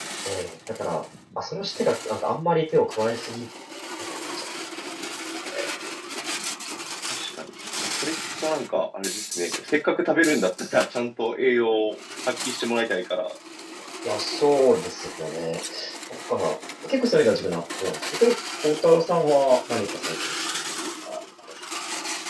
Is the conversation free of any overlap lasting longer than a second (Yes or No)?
Yes